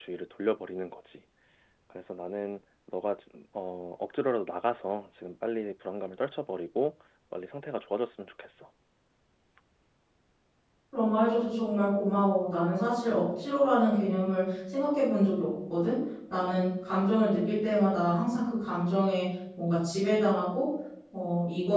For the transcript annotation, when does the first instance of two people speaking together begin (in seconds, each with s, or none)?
none